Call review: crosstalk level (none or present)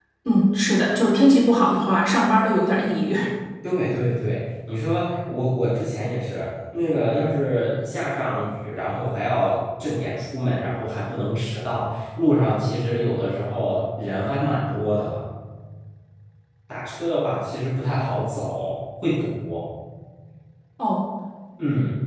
none